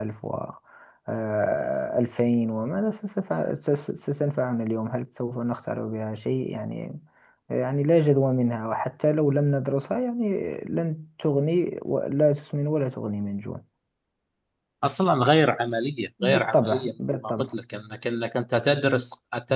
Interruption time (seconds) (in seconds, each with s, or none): 16.2 s